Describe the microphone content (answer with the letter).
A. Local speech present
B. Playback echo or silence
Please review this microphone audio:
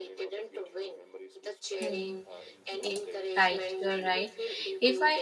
A